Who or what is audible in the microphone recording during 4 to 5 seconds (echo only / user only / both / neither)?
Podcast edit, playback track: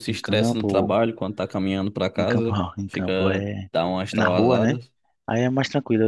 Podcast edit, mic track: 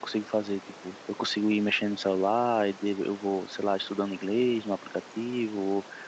user only